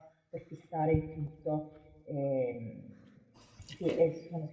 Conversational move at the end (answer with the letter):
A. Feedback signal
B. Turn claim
A